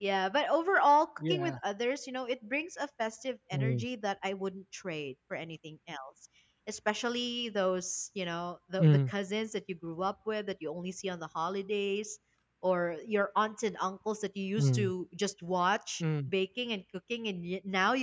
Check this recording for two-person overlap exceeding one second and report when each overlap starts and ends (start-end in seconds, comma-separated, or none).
none